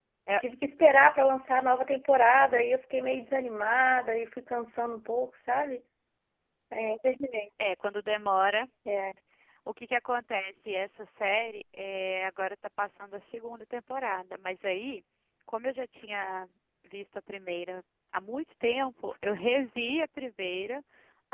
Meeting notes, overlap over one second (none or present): none